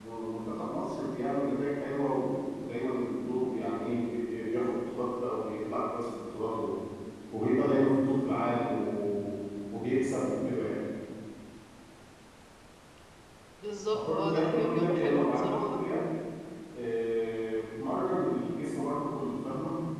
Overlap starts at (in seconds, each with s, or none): 14.1 s